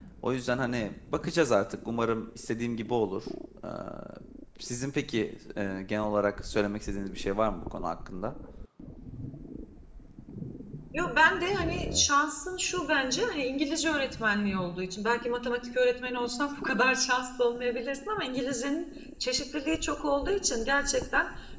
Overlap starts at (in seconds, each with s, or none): none